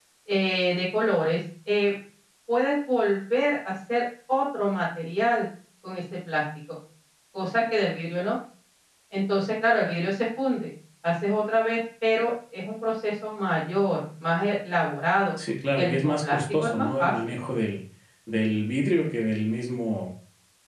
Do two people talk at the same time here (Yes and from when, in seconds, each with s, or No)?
Yes, from 15.8 s